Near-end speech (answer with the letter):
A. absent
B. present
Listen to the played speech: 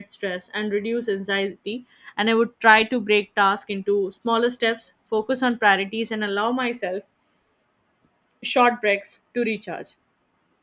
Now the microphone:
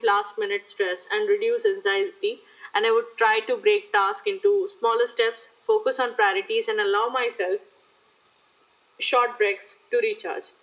A